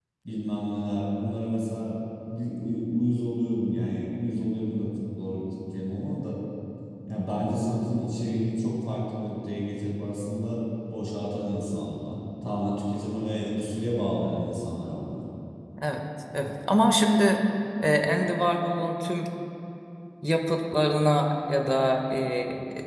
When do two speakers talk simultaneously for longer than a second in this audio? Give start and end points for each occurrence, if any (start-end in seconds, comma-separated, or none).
none